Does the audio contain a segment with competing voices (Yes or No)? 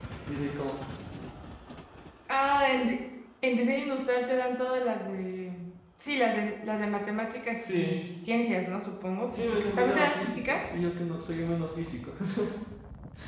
Yes